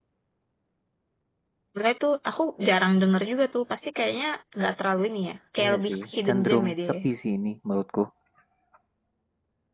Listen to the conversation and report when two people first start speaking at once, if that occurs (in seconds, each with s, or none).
5.6 s